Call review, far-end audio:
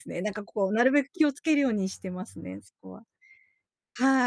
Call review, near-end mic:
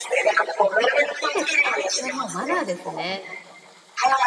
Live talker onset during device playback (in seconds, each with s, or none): 0.8 s